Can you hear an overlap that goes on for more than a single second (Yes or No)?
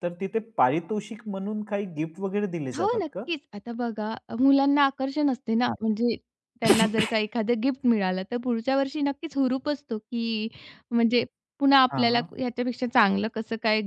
No